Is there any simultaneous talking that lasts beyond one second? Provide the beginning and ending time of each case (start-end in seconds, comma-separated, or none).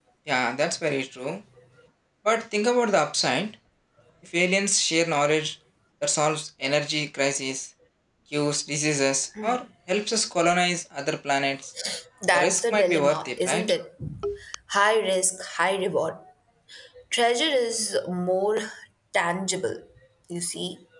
12.3-13.7